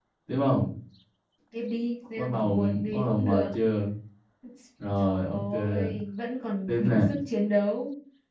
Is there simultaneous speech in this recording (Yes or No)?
Yes